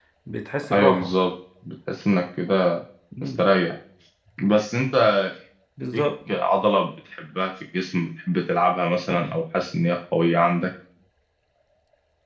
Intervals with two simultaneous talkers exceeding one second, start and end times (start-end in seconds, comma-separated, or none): none